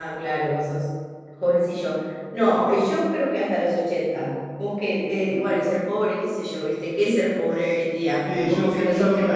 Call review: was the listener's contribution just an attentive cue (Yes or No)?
No